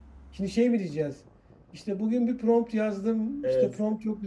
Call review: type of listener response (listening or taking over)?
listening